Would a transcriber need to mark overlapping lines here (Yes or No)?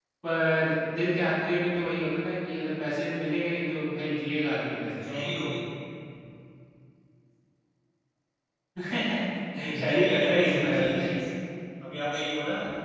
Yes